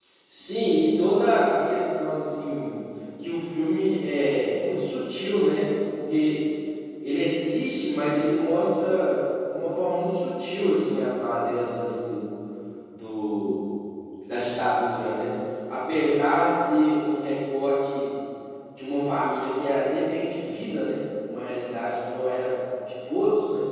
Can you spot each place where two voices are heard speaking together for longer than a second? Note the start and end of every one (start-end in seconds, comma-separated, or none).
none